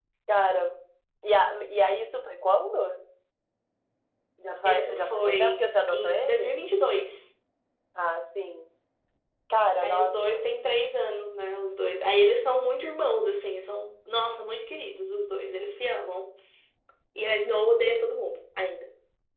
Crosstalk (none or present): present